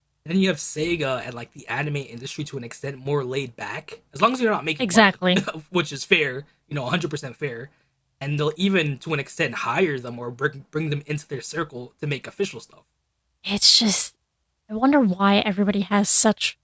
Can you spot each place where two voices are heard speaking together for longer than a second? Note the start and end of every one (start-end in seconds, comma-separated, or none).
none